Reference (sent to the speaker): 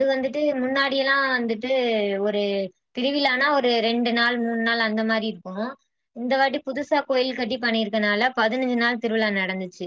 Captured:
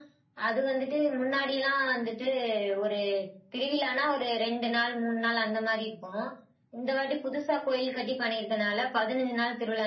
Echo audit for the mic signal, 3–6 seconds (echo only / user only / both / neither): echo only